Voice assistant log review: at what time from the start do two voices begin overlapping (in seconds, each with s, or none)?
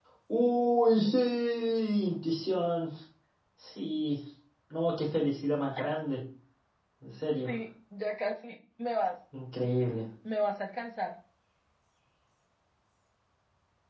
none